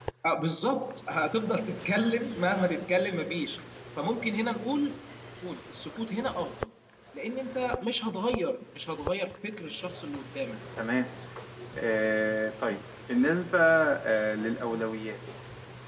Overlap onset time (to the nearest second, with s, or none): none